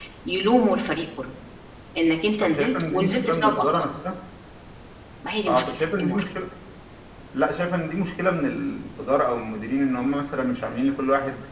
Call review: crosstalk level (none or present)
present